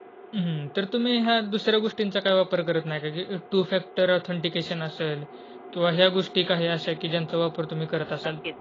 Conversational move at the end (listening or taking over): taking over